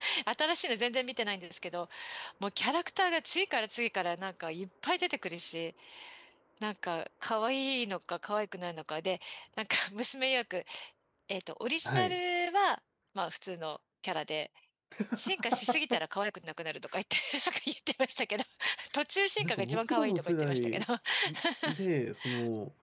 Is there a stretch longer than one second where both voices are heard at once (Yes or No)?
Yes